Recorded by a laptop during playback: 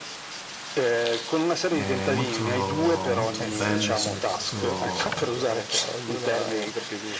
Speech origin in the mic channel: both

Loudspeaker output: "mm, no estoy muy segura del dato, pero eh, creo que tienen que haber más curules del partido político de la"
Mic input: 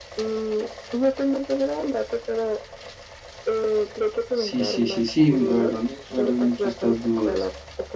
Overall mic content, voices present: both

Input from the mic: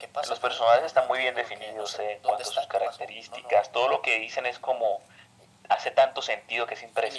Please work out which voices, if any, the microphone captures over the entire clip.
echo only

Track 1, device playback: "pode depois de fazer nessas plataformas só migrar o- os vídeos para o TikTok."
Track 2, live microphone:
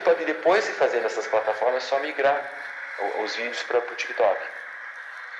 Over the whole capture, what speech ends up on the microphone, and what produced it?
echo only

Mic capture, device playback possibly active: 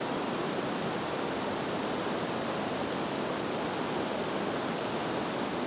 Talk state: neither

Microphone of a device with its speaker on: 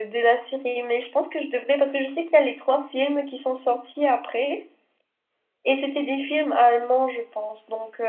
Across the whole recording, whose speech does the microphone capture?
echo only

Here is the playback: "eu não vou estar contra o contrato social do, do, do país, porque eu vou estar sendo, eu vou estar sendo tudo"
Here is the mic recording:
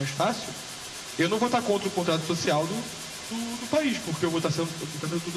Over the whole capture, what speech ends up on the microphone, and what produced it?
echo only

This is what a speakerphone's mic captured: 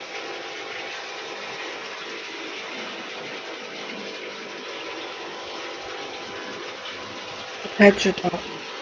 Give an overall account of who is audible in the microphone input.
user only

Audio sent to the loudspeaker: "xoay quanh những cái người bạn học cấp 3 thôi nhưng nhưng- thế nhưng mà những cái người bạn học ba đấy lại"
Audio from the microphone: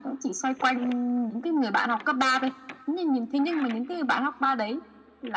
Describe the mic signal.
echo only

